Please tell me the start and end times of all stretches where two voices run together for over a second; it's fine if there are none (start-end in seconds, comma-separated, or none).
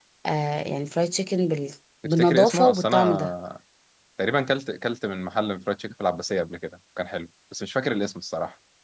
2.0-3.3